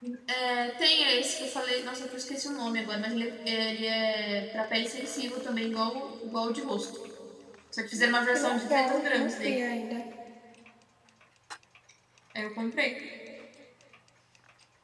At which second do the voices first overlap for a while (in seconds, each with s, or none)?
8.0 s